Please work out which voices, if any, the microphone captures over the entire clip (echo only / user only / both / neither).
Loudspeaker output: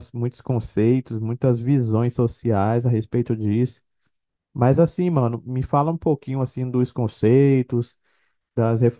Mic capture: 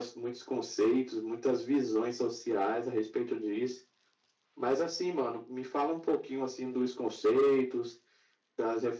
echo only